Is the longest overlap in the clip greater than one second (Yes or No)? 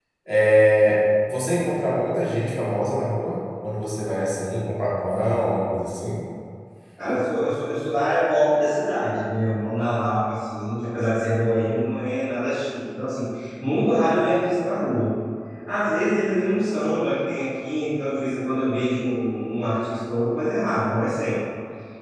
No